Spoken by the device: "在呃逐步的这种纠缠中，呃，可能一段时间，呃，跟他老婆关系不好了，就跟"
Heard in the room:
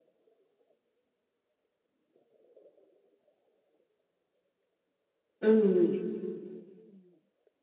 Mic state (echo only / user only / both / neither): user only